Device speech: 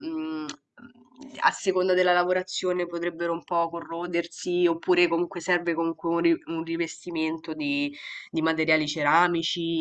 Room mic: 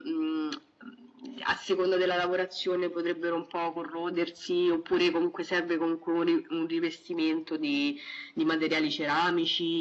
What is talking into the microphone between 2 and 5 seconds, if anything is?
echo only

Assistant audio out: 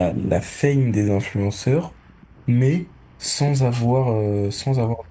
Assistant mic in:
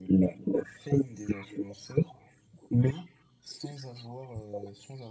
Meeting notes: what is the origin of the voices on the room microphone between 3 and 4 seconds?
echo only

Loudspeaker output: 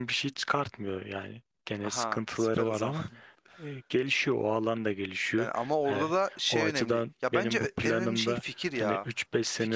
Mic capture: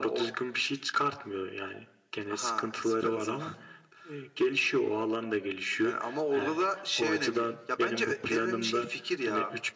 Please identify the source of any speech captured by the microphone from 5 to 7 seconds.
echo only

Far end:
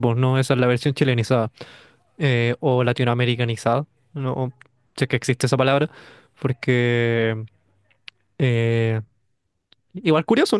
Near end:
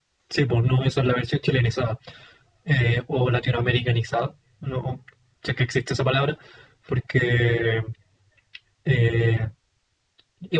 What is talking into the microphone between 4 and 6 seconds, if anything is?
echo only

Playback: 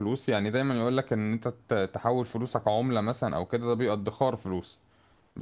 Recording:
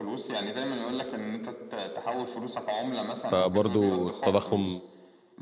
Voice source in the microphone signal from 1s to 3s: echo only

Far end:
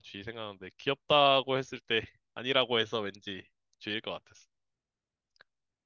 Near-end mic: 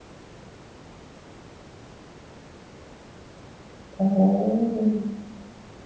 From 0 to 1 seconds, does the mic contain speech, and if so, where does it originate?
neither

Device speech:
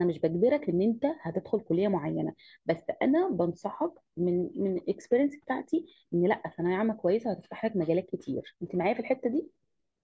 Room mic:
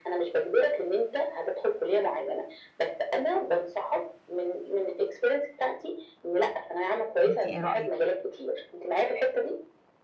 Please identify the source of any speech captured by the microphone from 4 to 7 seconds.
echo only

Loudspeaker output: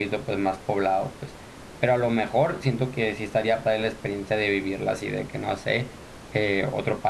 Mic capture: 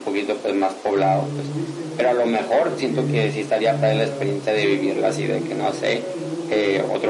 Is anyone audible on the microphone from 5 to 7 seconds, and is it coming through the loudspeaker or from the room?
both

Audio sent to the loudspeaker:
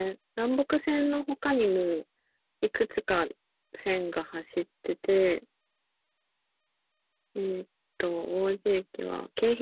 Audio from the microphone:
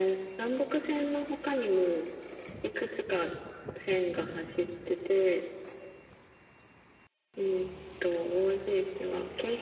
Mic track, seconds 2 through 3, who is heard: echo only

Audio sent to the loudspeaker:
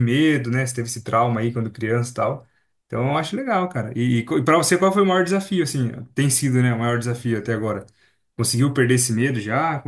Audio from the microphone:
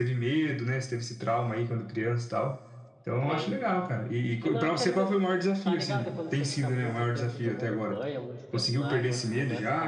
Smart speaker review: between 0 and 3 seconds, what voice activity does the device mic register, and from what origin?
echo only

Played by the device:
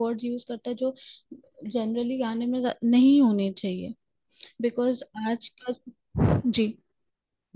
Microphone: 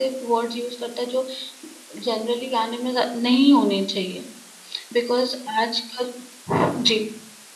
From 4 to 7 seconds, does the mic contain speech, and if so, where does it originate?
echo only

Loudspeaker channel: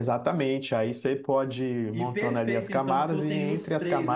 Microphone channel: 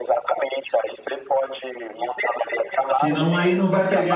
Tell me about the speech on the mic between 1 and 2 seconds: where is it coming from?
echo only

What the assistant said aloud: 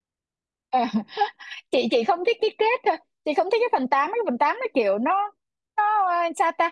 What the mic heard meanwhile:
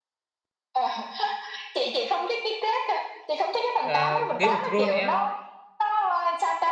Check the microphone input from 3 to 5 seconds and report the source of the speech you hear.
both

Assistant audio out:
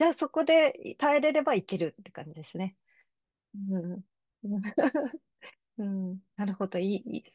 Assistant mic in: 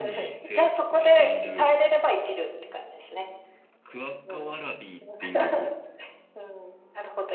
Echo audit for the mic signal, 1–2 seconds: both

